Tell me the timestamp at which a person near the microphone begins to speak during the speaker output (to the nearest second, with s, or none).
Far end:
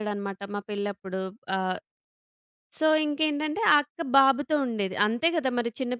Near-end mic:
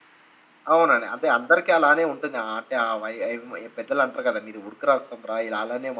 1 s